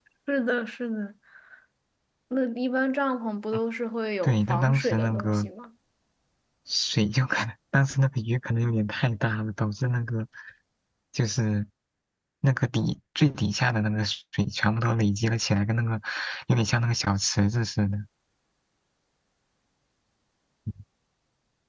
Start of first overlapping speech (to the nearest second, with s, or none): 4 s